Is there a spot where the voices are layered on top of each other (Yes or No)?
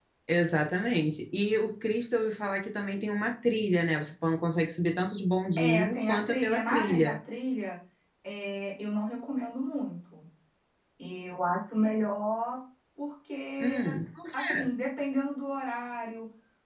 Yes